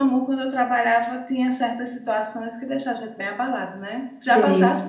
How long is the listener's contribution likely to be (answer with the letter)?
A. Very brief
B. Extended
A